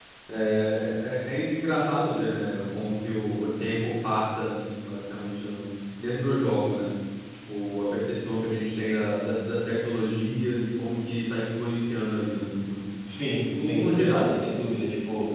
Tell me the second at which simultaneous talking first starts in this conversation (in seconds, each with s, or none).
13.2 s